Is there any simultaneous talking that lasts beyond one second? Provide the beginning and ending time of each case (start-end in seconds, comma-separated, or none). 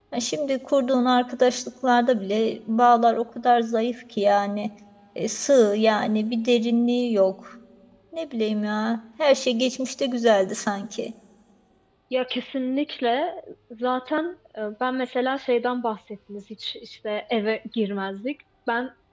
none